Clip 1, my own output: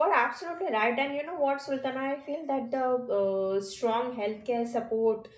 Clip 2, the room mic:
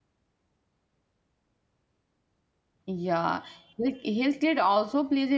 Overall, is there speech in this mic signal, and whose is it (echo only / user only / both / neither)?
user only